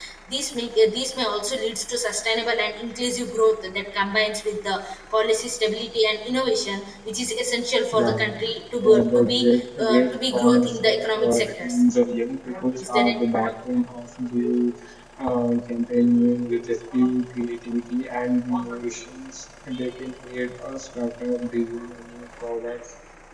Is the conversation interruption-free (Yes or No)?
No